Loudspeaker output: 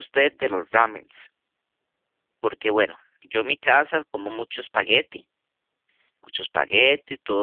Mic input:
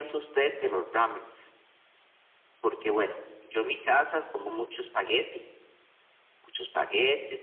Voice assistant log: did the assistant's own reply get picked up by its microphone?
Yes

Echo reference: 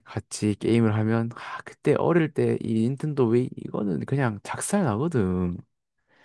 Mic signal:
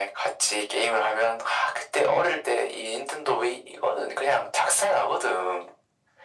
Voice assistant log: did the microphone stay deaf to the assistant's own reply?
No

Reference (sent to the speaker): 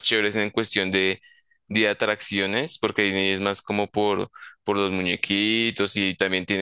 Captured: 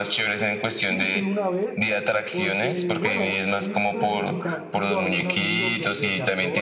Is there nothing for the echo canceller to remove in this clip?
No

